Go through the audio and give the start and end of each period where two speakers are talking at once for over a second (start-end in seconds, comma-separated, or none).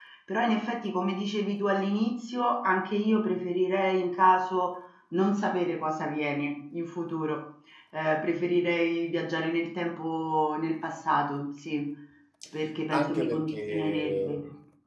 12.9-14.4